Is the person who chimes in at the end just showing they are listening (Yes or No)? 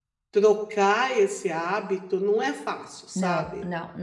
No